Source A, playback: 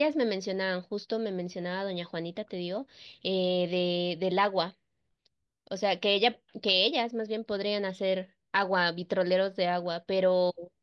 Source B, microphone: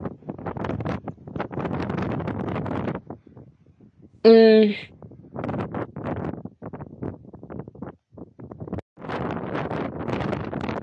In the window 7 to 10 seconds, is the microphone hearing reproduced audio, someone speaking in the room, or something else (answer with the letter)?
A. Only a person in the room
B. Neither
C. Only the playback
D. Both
B